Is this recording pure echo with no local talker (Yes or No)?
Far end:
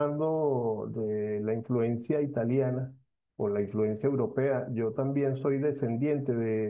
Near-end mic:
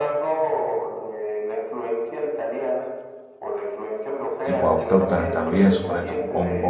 No